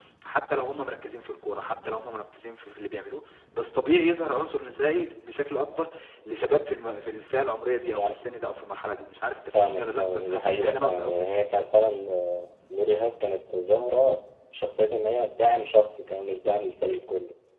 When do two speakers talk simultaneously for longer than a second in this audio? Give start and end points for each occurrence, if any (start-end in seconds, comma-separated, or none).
9.5-11.4